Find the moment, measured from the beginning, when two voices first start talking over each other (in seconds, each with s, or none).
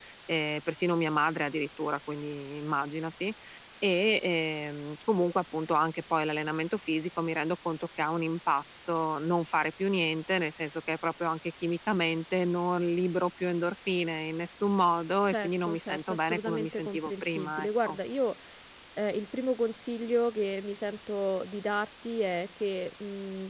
15.3 s